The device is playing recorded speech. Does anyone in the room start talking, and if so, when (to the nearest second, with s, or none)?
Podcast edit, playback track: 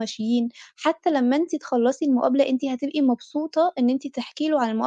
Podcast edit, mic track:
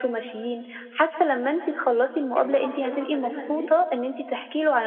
2 s